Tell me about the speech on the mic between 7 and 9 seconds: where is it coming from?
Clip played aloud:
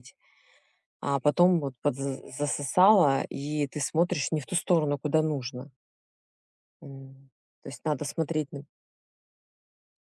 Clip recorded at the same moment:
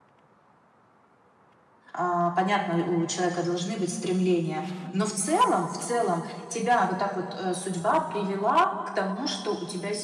user only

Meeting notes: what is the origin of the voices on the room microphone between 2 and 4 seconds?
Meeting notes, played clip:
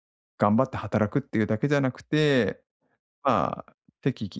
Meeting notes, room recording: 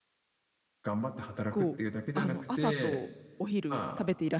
both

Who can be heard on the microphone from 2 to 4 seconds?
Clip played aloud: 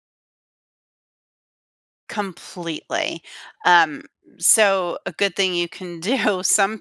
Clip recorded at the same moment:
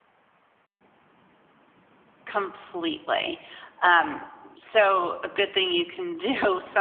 echo only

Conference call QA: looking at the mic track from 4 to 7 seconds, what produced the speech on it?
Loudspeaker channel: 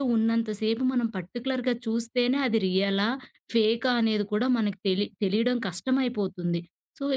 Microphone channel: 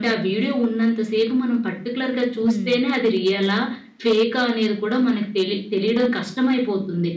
echo only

